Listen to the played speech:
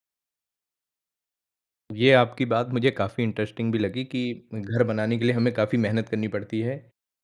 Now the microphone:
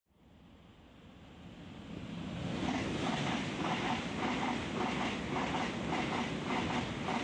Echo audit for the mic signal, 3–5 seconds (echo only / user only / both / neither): neither